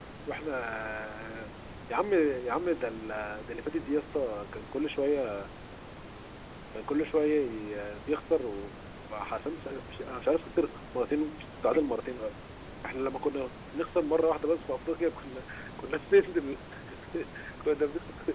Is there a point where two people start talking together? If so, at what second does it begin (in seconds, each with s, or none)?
none